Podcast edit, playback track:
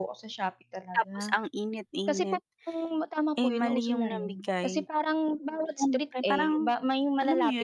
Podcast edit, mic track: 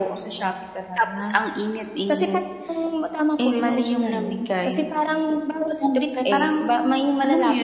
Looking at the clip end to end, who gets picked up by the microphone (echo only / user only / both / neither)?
echo only